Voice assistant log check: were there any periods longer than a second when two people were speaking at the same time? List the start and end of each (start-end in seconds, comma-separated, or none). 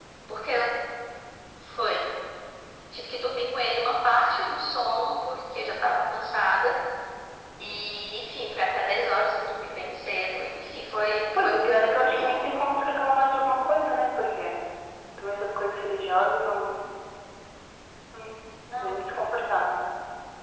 11.4-12.6